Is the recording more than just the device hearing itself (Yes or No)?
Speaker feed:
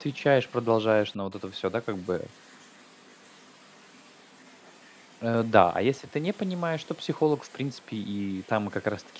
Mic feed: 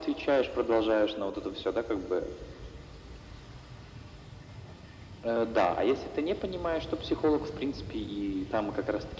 No